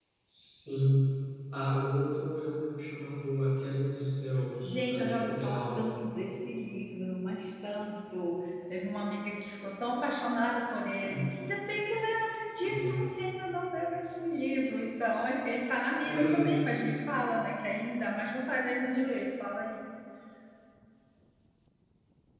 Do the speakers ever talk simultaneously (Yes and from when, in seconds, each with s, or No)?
Yes, from 4.6 s